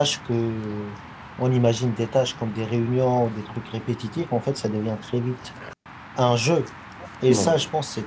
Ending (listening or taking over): listening